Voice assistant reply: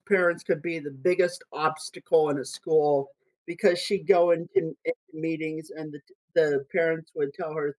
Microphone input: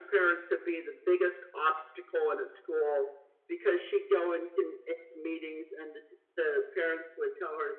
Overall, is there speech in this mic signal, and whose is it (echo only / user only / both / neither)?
echo only